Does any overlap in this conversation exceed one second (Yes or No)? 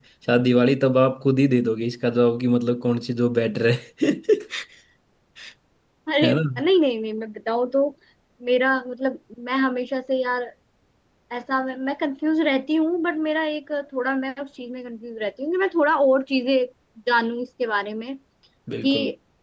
No